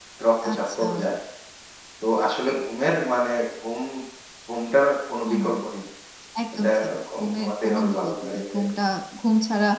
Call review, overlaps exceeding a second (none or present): present